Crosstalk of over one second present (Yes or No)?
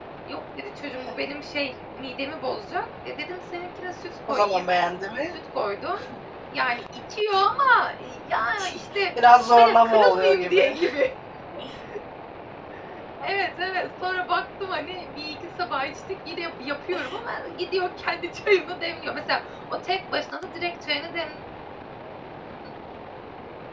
Yes